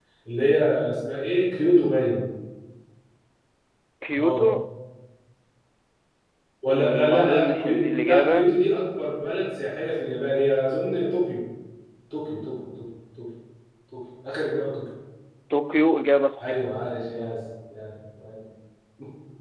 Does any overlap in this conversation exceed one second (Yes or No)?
Yes